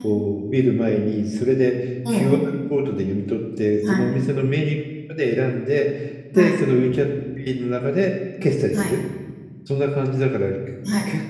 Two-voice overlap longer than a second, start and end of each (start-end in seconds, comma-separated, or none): none